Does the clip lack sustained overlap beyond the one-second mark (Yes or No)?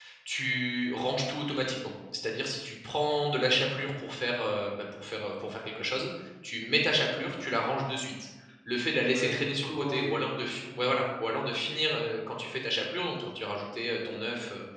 No